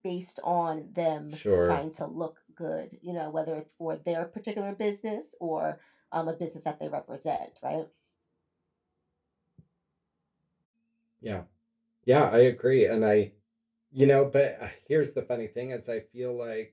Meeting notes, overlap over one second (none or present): none